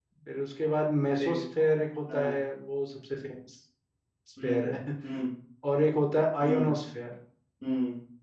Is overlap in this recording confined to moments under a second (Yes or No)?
Yes